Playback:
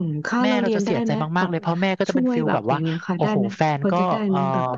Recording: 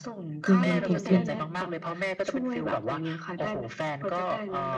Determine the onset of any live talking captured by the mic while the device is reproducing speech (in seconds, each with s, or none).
0.5 s